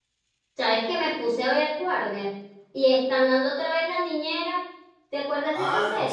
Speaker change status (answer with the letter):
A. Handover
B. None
A